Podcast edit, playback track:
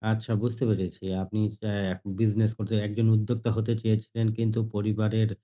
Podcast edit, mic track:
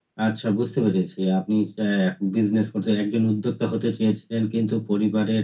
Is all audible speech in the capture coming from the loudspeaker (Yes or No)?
Yes